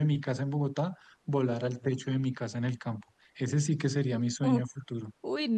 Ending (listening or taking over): taking over